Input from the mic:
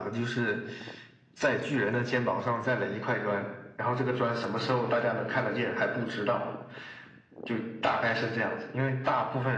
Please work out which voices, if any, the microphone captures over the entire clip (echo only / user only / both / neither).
echo only